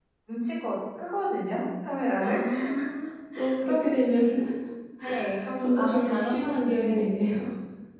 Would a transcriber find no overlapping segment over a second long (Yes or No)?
No